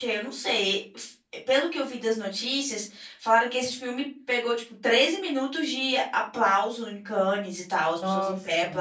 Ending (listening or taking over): listening